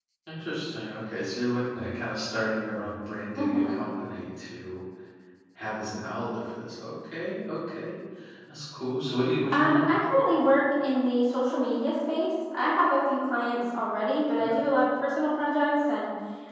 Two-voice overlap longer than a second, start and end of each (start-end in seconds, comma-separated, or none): none